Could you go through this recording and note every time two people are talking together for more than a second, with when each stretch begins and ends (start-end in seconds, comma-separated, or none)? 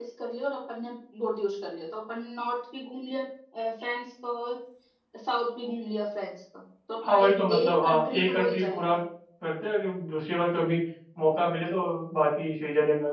7.0-8.9